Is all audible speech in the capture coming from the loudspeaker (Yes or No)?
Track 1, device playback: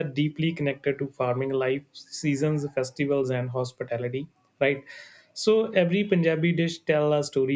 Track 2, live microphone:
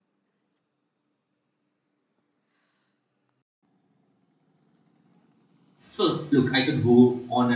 No